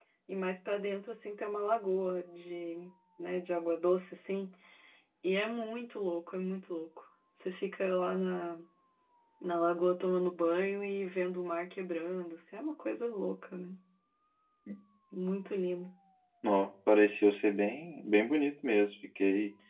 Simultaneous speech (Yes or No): No